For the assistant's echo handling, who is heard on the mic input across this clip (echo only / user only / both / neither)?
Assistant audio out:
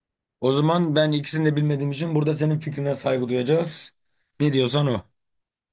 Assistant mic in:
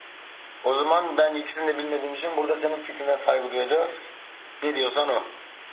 echo only